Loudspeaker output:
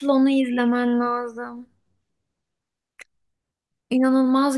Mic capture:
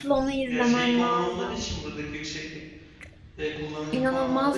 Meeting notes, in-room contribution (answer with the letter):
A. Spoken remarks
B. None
A